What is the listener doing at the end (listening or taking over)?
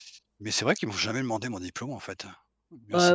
taking over